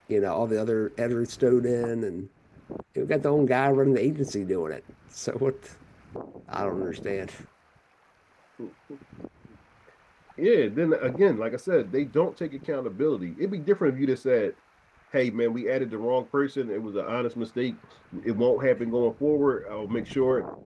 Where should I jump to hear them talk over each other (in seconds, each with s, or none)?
none